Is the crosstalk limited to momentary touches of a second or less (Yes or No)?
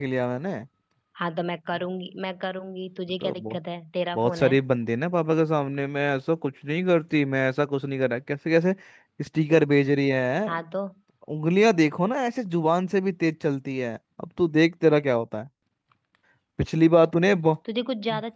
Yes